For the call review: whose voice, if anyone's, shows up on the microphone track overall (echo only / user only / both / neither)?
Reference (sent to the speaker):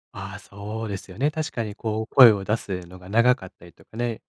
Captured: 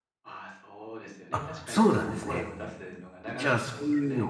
both